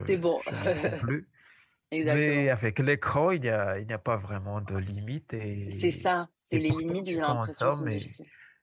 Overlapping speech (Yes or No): Yes